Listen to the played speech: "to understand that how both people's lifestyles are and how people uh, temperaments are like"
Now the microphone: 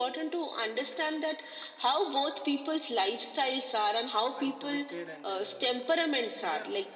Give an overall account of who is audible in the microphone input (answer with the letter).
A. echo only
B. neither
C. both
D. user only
C